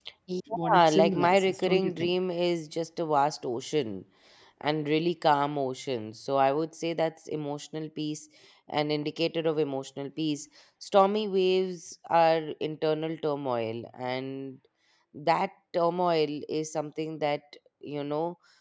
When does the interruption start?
1 s

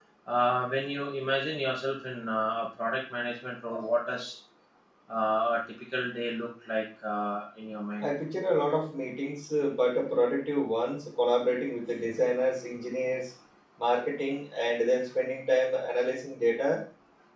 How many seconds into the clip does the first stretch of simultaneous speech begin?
none

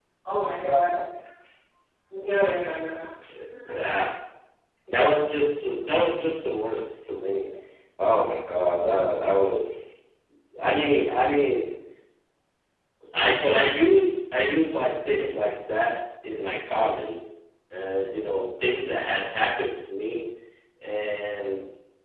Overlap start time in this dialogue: none

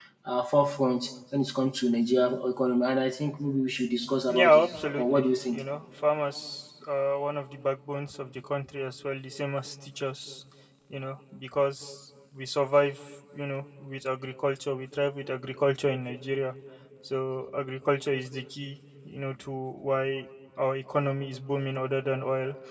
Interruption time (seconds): 4 s

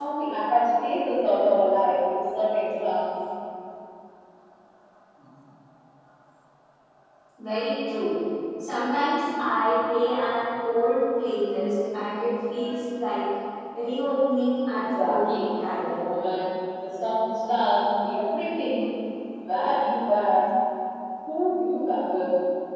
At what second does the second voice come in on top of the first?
15 s

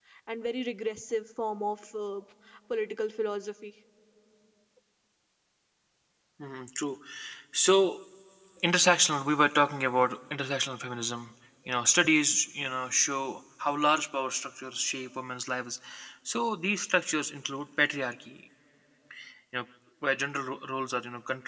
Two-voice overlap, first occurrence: none

